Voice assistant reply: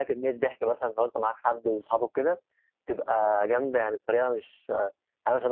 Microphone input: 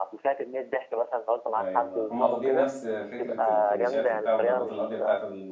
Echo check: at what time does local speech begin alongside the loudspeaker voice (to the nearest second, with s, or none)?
2 s